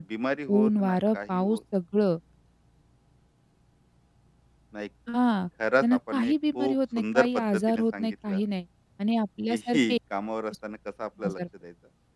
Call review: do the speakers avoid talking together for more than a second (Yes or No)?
No